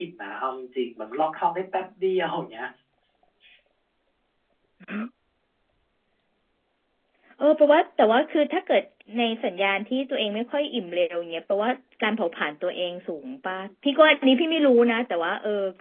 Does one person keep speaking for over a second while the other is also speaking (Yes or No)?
No